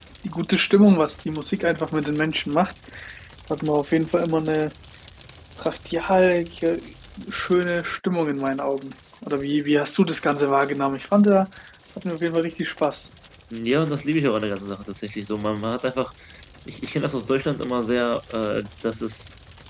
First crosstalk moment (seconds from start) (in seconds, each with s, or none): none